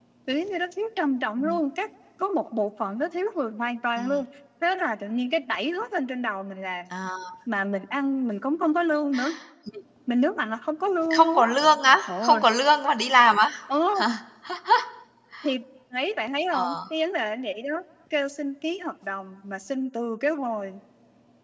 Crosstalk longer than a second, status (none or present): none